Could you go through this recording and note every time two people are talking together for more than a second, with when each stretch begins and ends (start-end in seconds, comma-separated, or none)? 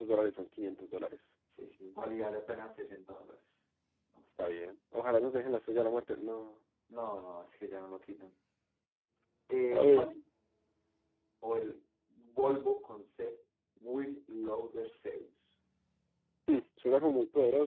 none